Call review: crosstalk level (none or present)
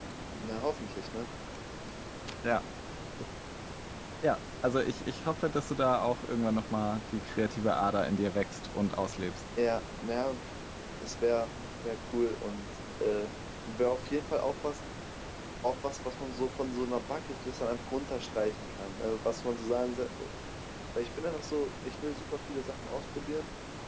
none